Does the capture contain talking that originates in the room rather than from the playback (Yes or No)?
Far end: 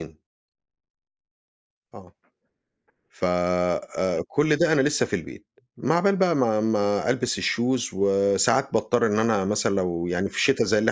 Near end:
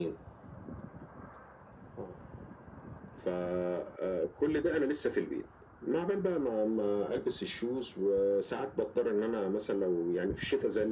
No